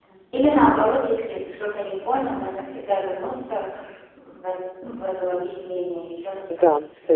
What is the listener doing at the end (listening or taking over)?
taking over